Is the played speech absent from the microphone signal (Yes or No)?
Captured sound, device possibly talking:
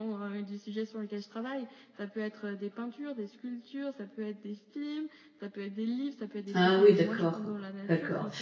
No